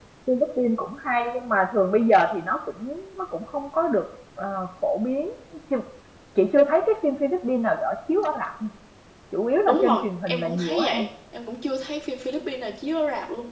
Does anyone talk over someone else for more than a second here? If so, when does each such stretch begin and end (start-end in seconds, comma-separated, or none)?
9.7-11.0